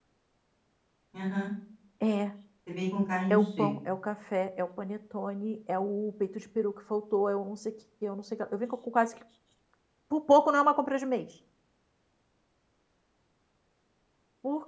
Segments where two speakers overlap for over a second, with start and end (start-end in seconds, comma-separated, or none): none